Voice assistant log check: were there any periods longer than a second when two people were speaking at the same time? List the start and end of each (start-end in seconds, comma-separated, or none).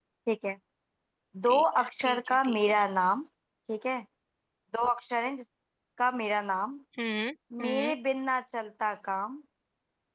1.5-2.8